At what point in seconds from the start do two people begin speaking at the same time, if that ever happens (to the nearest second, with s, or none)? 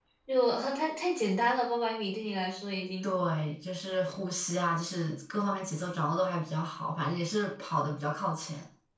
none